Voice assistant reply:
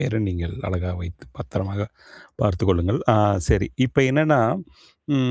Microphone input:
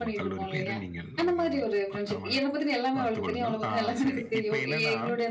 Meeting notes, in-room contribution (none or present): present